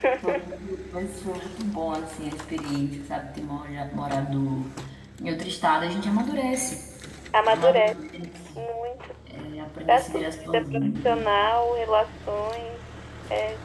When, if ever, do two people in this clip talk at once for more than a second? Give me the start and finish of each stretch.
9.9-11.2

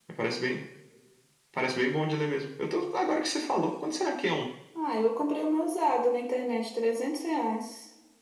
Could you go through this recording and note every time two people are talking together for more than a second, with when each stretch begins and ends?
none

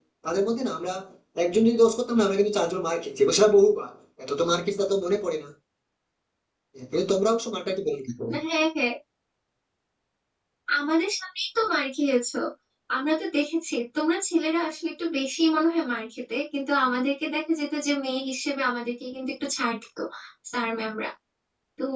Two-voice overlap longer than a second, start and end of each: none

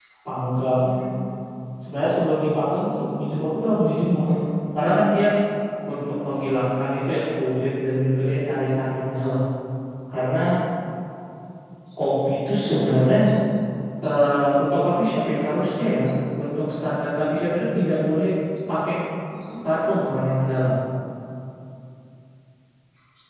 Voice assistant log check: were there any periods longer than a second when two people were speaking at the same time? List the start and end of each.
none

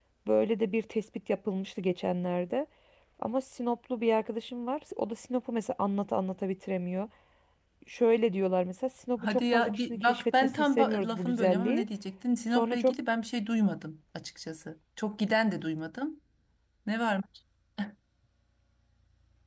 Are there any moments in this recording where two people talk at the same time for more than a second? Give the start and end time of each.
9.2-11.8

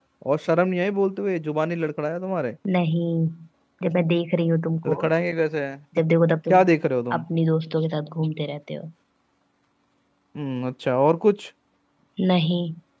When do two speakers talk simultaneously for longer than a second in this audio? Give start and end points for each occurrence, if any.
none

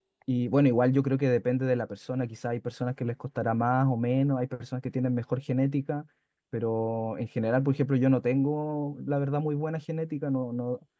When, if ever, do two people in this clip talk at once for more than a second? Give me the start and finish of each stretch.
none

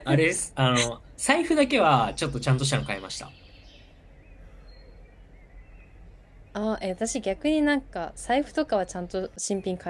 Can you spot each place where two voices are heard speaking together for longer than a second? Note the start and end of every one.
none

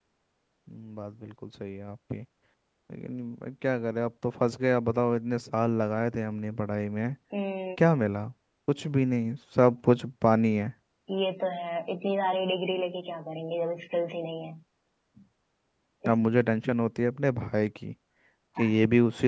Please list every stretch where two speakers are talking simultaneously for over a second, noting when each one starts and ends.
none

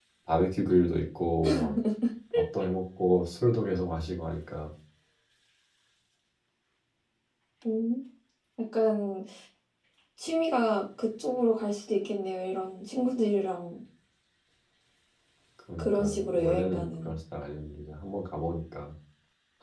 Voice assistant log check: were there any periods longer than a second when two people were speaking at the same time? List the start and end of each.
15.8-17.1

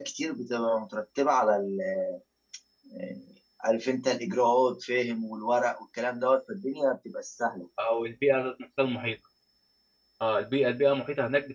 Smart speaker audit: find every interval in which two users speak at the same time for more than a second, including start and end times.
none

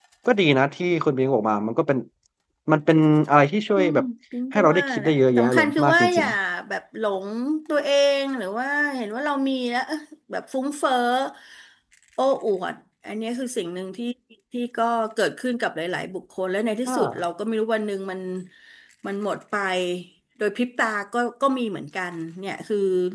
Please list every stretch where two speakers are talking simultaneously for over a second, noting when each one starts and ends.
4.5-6.3

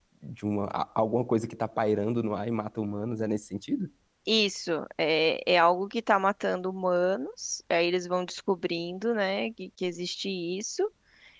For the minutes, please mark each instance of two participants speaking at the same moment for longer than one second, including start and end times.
none

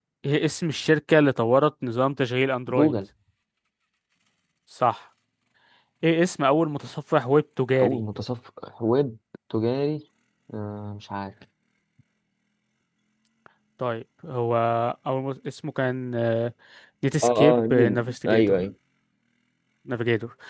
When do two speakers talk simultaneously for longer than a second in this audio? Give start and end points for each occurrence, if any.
17.2-18.7

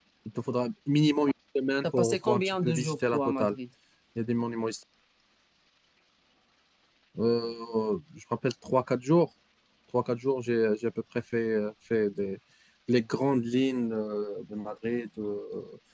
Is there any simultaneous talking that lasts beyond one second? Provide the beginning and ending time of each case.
1.8-3.5

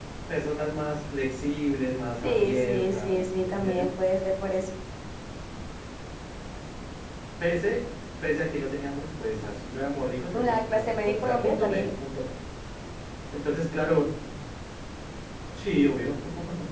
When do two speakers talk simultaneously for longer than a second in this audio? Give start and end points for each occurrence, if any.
2.2-3.8, 10.3-11.9

